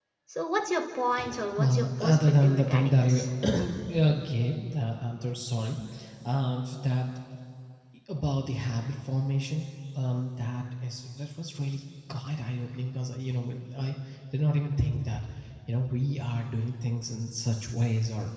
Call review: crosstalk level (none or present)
present